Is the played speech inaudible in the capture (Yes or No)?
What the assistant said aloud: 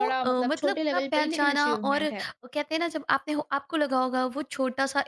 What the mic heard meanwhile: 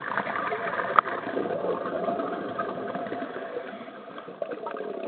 Yes